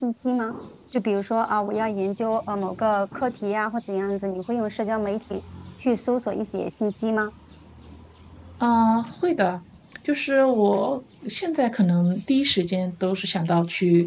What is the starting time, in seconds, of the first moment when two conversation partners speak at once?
none

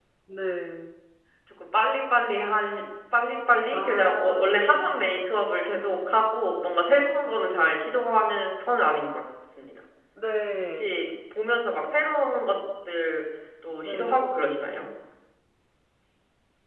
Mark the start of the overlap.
3.7 s

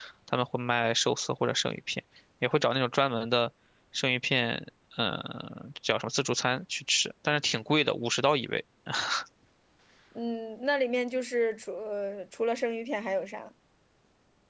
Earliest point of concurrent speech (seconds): none

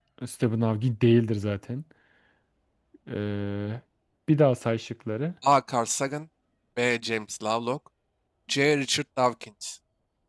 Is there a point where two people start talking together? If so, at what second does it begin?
none

